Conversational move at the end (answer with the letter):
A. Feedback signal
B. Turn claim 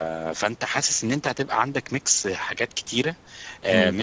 A